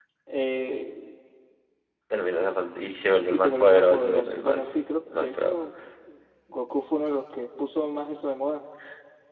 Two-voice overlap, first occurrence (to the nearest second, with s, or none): 3 s